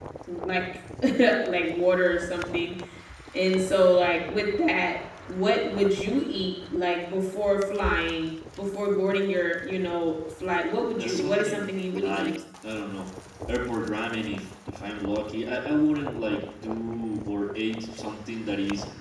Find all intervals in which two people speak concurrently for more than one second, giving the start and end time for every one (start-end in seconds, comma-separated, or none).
11.0-12.3